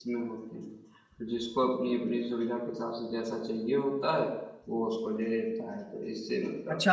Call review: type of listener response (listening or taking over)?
taking over